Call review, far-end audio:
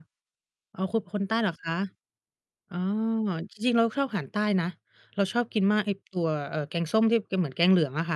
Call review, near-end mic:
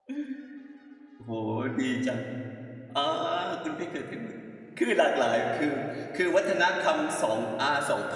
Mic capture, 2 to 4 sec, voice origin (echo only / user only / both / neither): user only